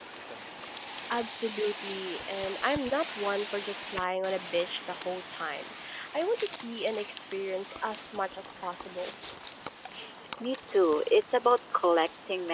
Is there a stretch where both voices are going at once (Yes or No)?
No